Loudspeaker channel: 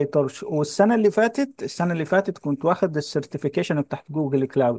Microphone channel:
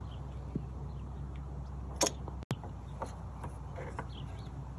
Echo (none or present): none